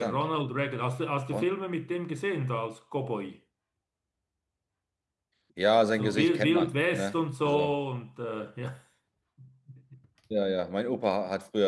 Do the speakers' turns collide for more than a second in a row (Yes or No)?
Yes